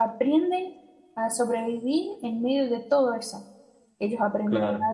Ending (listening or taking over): listening